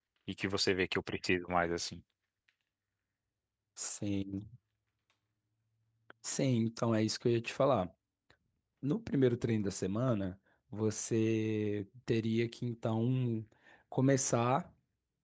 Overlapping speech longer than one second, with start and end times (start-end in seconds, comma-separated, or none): none